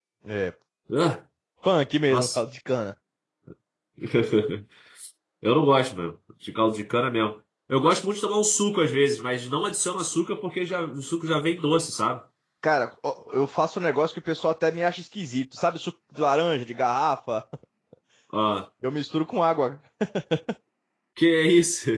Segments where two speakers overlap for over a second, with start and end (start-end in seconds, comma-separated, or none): none